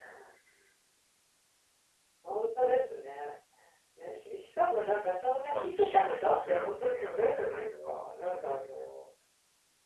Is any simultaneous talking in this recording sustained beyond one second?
Yes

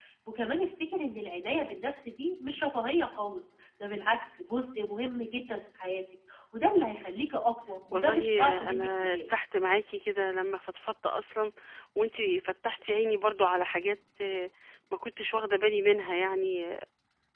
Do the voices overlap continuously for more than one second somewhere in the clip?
Yes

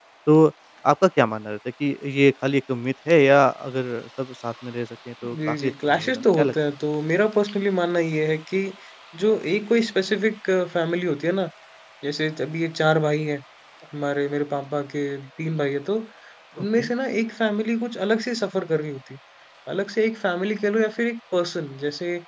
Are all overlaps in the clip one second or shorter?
No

